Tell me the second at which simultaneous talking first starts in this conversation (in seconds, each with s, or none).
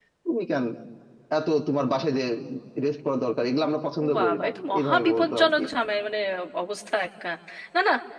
4.0 s